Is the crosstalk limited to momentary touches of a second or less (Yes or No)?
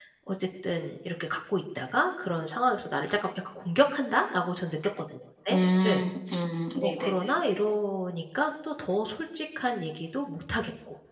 Yes